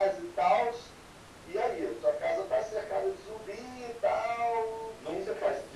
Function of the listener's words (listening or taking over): taking over